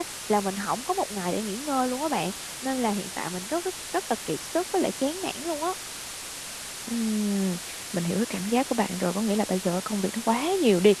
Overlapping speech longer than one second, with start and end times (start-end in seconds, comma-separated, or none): none